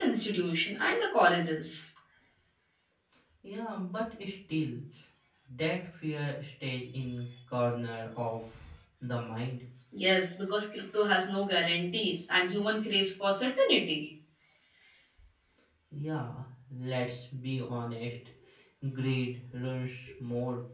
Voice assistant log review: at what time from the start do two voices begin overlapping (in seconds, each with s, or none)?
none